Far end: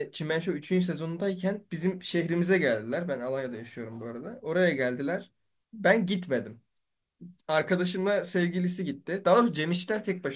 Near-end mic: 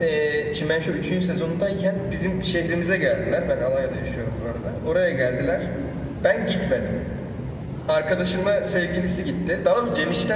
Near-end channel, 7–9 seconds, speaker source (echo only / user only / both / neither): echo only